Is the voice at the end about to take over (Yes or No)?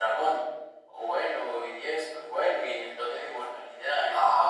Yes